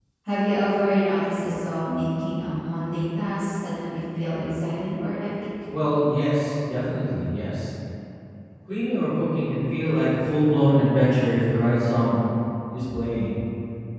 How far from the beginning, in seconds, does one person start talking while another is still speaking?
none

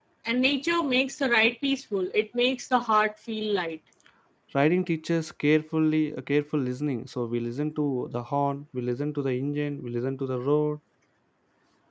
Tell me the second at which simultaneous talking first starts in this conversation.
none

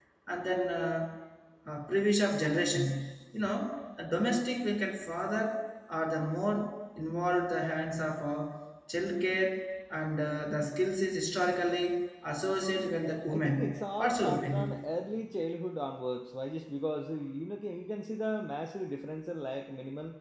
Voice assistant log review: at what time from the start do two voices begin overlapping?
13 s

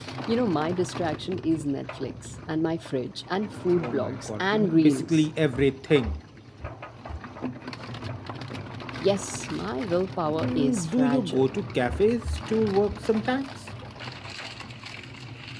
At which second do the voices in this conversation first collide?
4 s

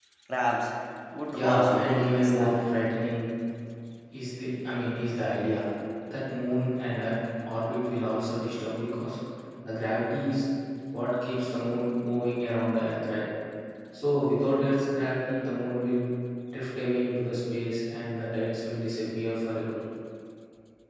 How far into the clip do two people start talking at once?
1 s

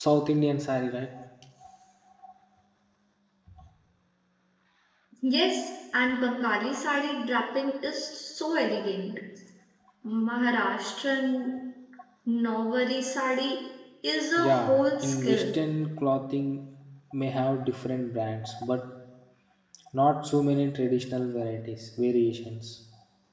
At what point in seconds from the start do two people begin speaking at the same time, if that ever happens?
14 s

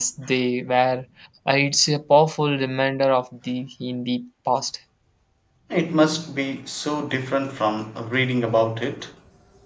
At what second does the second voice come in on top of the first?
none

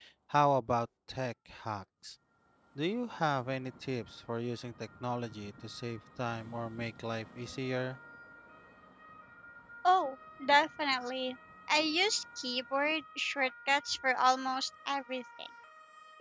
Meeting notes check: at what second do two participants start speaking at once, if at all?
none

